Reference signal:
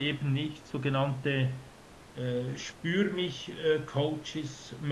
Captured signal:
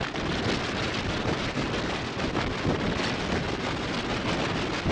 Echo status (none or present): none